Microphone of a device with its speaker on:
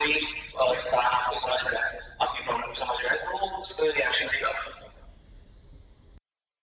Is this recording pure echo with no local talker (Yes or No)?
Yes